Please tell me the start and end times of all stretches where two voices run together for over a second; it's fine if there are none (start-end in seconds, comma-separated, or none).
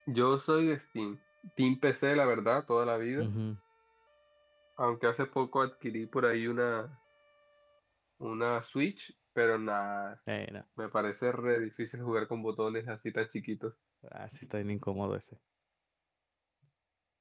none